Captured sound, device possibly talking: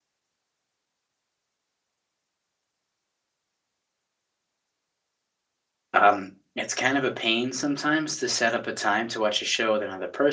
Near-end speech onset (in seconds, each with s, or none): 5.9 s